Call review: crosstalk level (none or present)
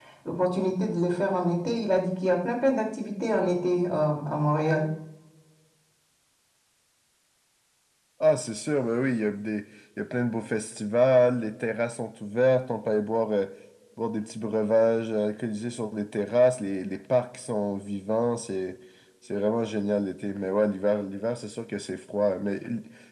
none